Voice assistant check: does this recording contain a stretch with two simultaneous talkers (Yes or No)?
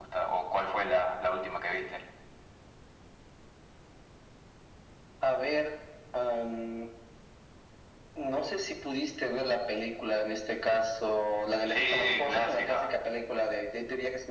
Yes